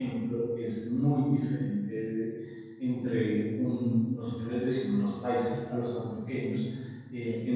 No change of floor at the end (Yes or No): Yes